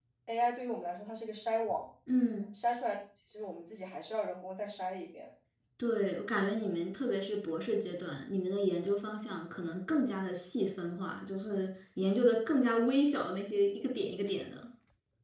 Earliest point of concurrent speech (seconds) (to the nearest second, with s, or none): none